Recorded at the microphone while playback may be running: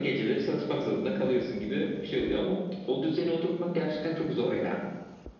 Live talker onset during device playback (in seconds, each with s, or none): none